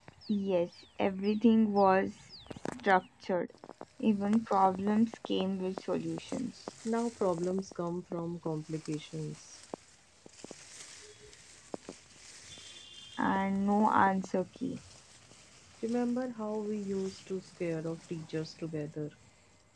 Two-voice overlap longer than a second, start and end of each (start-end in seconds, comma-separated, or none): none